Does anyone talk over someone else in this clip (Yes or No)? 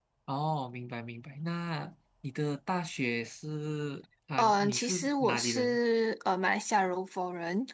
Yes